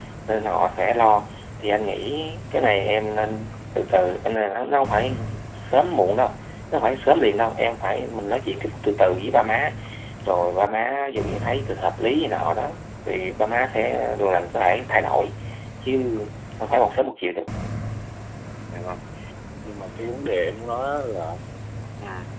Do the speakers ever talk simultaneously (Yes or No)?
No